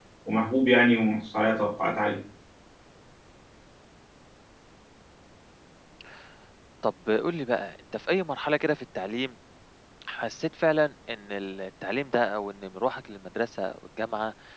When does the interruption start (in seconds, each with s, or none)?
none